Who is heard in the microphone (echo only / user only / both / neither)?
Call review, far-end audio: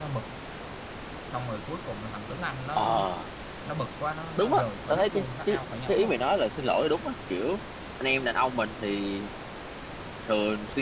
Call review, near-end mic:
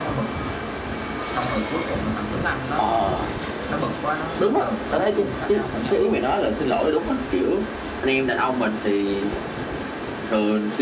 echo only